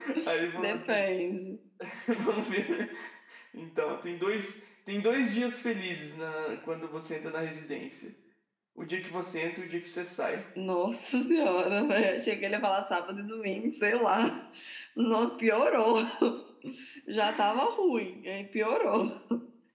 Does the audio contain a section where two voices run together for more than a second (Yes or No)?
No